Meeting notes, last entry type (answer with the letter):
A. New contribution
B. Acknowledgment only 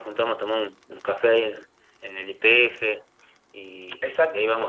A